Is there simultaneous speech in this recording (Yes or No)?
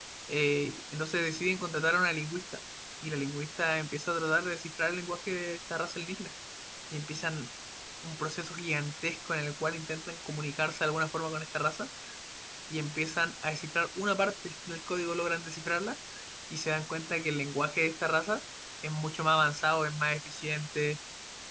No